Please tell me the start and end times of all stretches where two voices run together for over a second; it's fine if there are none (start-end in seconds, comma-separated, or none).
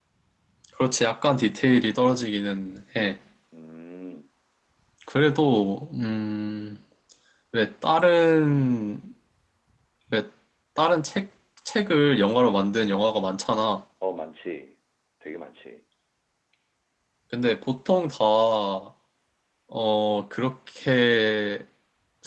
none